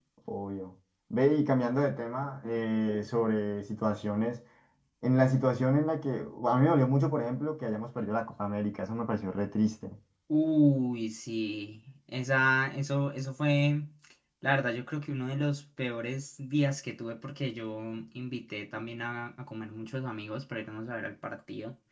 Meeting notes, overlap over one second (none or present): none